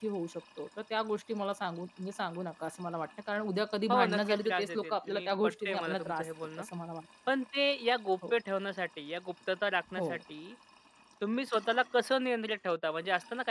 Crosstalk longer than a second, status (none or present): present